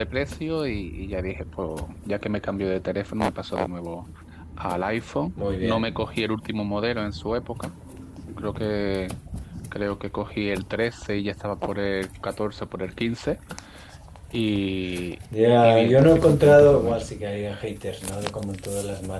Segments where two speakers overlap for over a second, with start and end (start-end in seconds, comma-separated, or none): 15.6-17.0